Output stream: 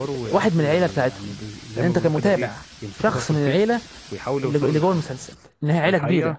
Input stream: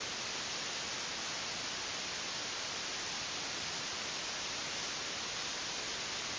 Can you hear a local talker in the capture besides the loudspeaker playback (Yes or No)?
No